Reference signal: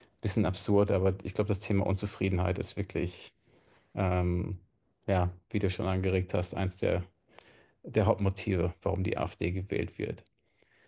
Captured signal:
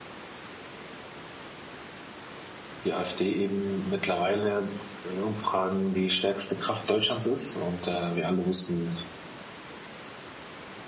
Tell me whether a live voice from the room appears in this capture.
Yes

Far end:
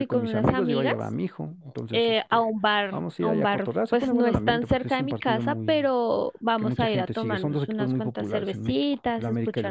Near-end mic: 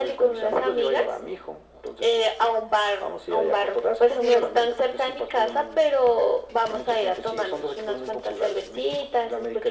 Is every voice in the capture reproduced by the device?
Yes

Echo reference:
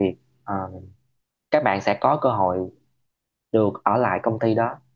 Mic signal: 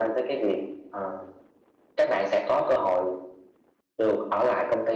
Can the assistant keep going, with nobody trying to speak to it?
Yes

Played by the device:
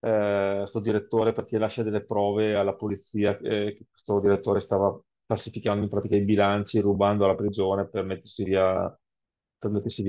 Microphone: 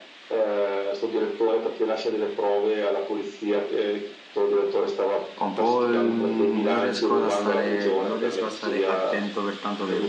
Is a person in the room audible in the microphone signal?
Yes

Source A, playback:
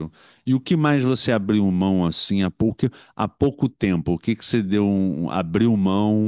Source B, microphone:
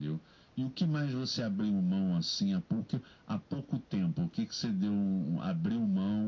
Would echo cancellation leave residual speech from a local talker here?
No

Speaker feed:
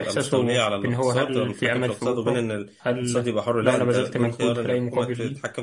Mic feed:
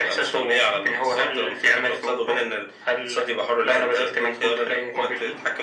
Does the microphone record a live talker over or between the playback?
No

